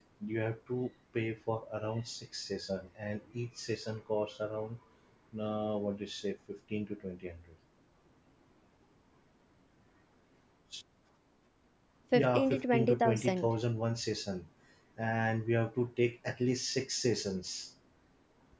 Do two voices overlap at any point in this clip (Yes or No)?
Yes